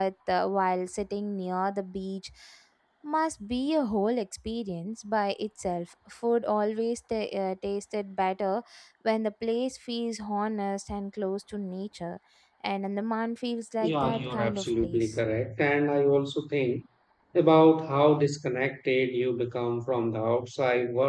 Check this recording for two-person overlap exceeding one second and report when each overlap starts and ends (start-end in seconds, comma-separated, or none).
13.8-15.2